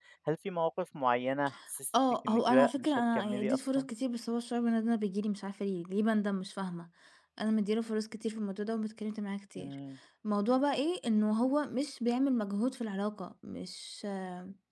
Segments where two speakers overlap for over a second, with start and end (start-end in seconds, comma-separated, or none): 2.2-3.9